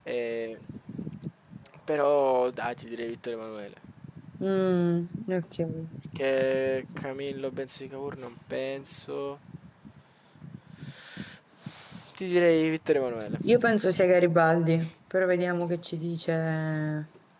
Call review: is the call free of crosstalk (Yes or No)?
Yes